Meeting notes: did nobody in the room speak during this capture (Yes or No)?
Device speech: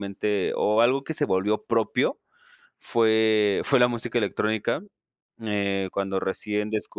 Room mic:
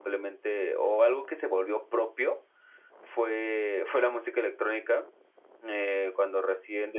Yes